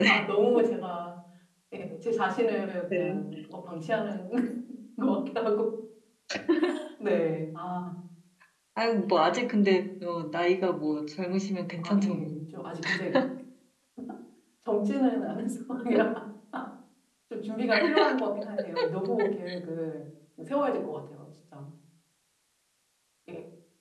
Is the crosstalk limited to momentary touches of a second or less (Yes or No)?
Yes